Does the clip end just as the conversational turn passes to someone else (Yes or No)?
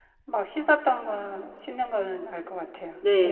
Yes